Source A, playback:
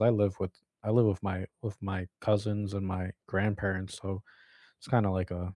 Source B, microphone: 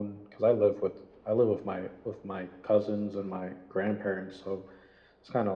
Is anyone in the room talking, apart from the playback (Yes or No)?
No